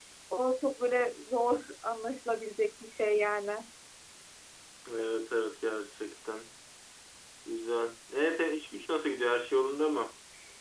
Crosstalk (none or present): none